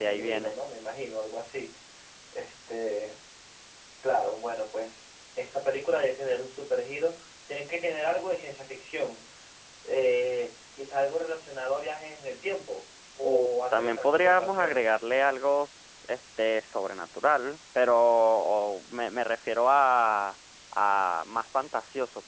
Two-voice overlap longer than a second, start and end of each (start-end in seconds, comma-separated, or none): 13.2-15.0